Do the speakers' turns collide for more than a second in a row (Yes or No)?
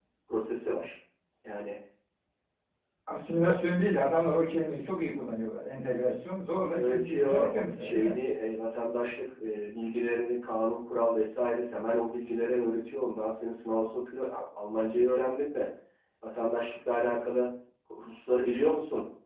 Yes